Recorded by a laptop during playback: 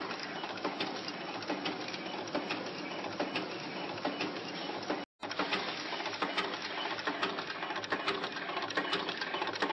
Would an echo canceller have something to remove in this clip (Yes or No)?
No